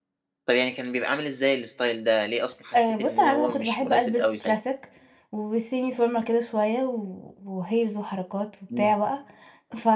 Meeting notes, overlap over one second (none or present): present